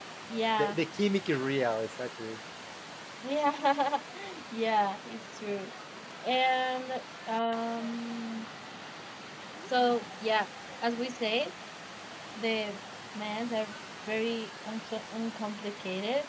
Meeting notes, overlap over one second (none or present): none